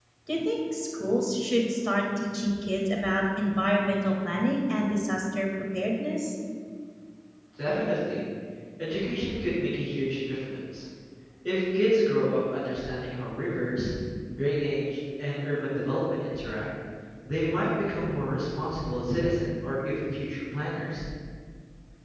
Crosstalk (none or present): none